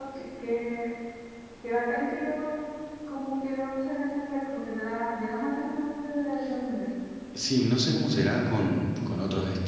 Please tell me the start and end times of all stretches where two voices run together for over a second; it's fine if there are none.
none

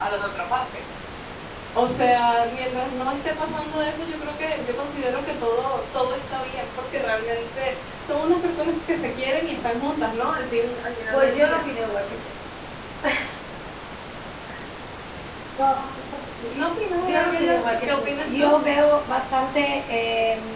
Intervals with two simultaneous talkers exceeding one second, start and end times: 17.0-18.5

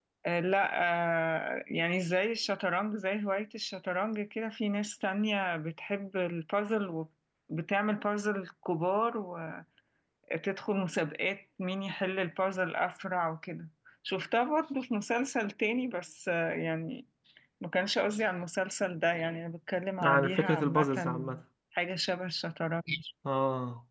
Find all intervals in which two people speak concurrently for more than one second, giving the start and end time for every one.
20.0-21.4

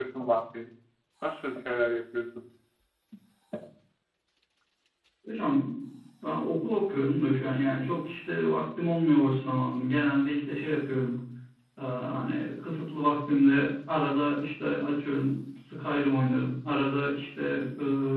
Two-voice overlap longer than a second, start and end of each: none

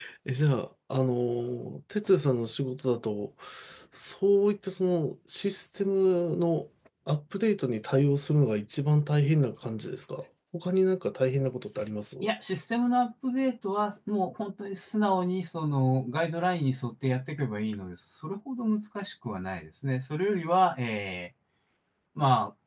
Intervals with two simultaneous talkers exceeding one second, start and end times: none

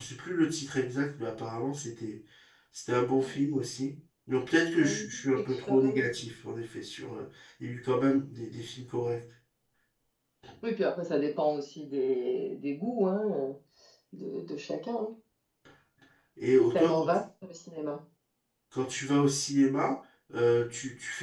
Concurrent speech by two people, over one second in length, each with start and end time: 4.8-6.1

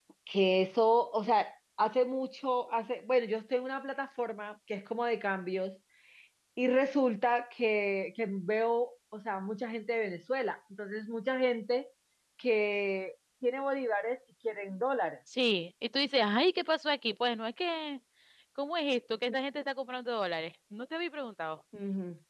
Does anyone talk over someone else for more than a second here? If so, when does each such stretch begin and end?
none

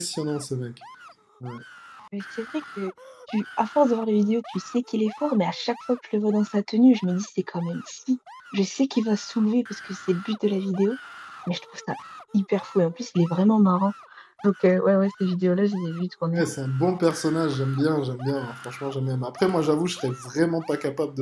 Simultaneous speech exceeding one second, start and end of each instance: none

